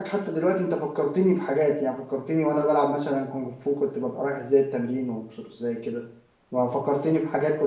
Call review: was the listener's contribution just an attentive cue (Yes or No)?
Yes